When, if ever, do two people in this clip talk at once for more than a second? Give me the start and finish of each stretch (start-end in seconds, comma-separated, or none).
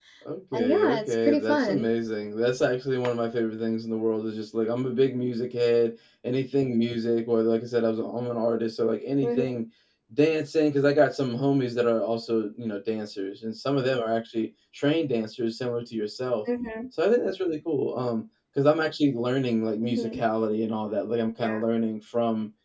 0.6-1.9